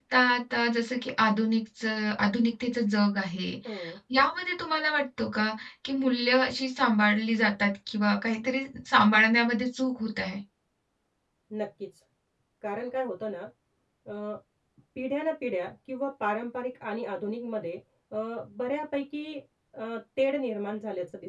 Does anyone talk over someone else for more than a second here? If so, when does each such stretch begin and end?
none

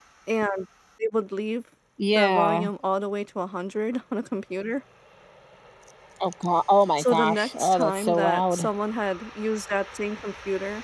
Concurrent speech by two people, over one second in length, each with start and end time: 7.0-8.7

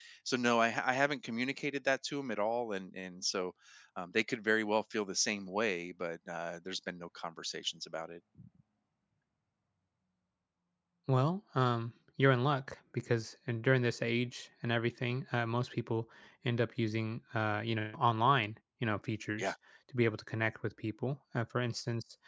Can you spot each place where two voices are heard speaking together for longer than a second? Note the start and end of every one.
none

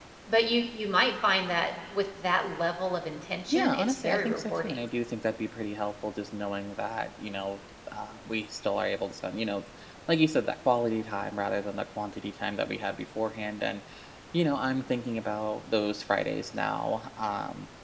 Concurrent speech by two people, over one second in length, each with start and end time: 3.5-4.9

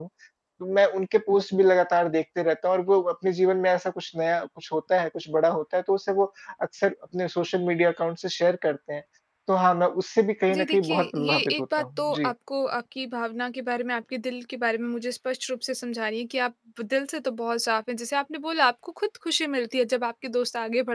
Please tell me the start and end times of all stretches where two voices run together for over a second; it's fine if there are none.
10.5-12.3

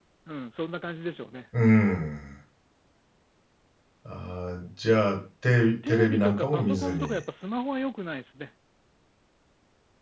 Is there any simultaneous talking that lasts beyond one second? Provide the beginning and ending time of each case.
5.9-7.2

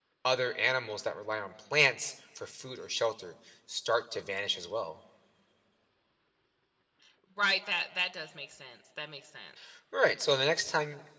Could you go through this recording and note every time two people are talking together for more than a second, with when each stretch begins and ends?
none

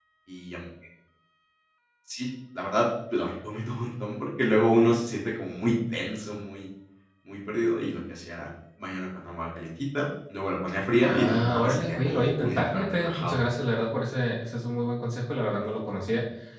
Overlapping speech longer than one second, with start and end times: 11.0-13.4

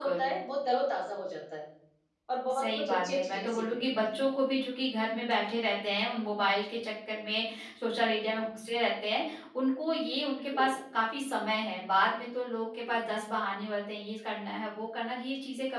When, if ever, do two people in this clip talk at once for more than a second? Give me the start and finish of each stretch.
2.5-4.3

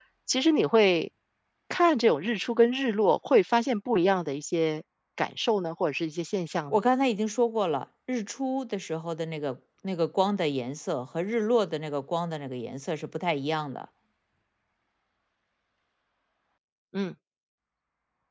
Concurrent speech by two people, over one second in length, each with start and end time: none

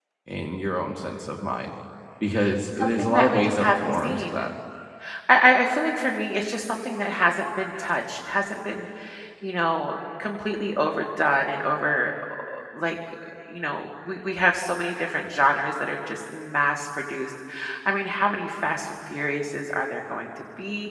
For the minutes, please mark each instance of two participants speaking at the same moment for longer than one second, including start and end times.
2.8-4.3

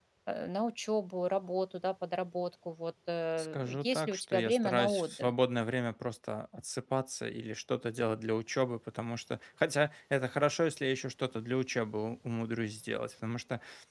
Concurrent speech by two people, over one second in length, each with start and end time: 3.4-5.3

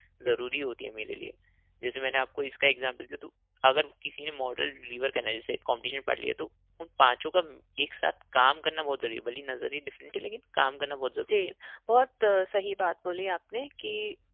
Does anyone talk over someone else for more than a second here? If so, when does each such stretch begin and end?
none

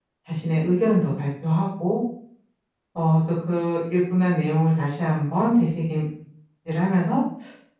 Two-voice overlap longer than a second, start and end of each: none

